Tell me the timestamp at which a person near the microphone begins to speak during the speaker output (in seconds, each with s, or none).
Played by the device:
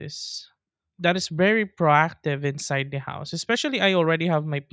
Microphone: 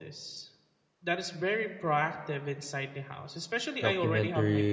3.8 s